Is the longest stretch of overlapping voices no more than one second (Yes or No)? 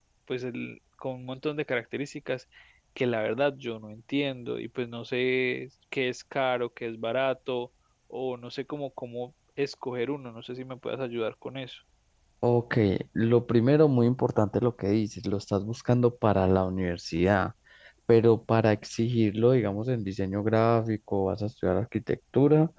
Yes